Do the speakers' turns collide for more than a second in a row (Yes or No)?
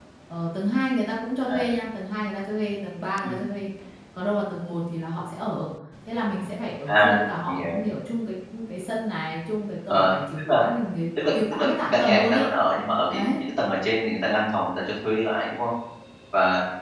Yes